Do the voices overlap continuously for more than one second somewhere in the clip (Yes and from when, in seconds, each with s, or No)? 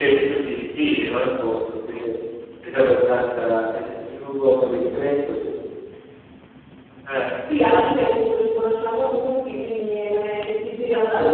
No